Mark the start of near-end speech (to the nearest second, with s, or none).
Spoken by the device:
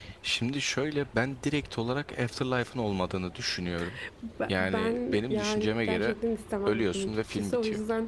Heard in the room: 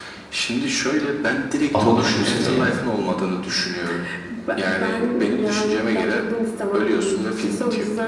2 s